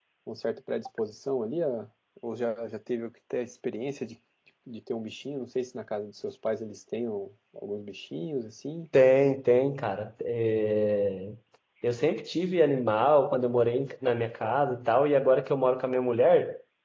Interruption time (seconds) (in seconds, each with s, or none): none